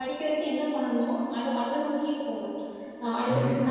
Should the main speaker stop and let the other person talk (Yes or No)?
No